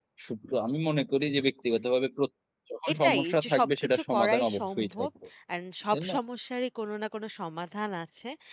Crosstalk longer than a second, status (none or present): present